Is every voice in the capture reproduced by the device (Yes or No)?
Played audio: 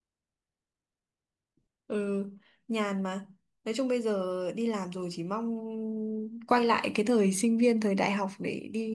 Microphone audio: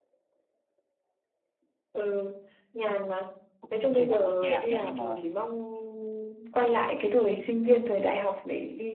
No